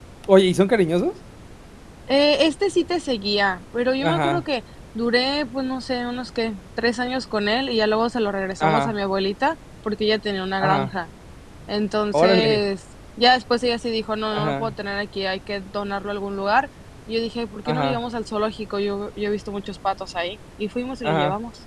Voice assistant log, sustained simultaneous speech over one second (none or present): none